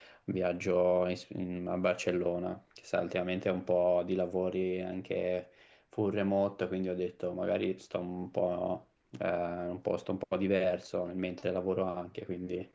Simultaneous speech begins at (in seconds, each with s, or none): none